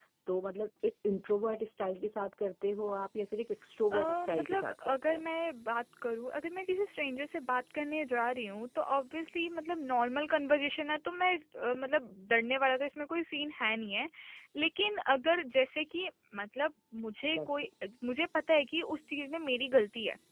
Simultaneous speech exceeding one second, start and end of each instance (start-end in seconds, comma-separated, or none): 3.9-5.2